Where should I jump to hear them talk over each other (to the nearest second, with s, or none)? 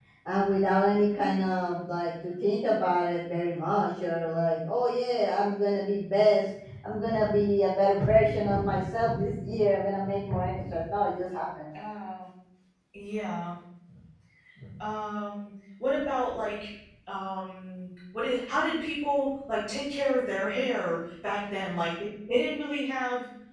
none